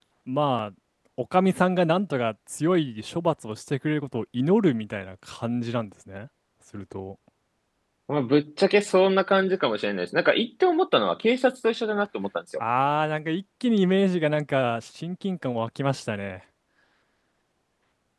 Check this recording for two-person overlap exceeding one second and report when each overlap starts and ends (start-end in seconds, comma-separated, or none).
none